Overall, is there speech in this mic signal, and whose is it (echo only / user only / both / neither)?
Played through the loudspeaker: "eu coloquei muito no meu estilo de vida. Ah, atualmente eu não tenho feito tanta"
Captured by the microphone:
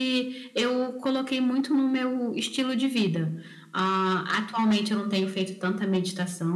echo only